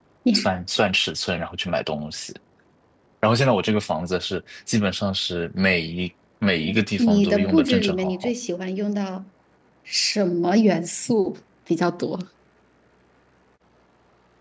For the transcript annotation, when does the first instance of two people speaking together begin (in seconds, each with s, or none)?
7.0 s